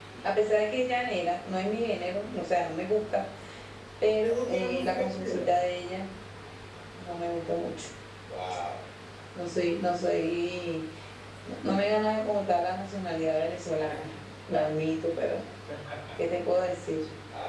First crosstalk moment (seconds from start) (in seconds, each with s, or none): 4.2 s